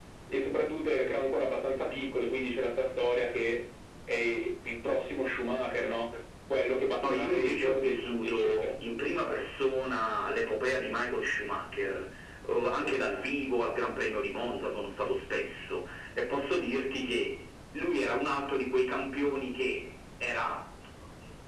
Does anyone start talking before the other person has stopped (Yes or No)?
Yes